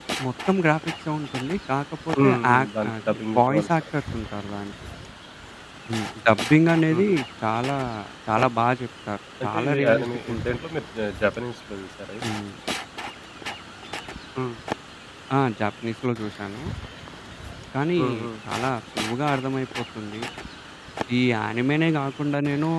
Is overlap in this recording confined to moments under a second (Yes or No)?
No